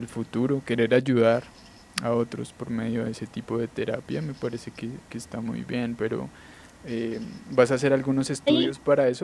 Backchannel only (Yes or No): Yes